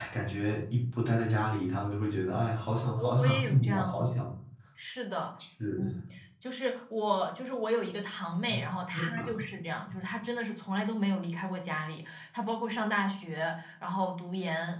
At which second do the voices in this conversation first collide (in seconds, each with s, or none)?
2.8 s